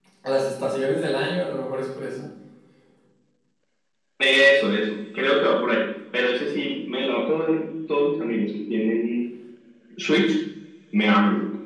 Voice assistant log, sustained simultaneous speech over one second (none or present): none